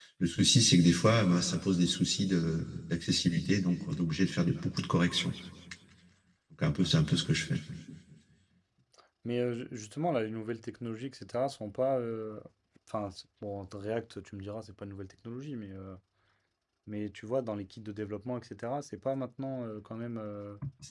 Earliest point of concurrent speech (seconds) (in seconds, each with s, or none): none